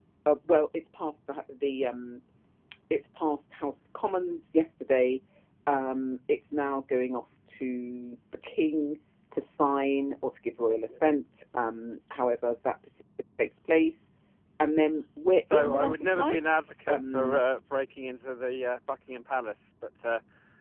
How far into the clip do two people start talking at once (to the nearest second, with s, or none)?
15 s